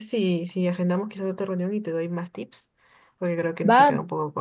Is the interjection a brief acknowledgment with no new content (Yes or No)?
No